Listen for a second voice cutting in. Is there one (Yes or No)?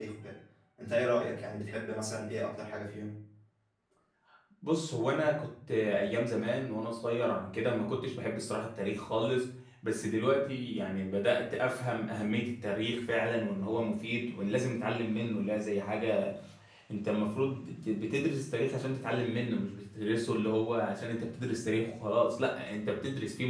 No